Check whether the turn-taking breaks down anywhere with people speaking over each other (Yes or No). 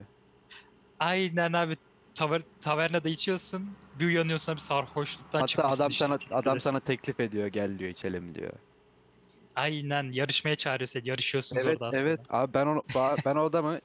Yes